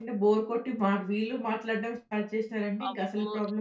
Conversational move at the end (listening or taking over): taking over